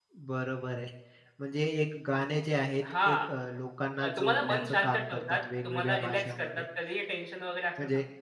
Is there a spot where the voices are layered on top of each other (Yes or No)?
Yes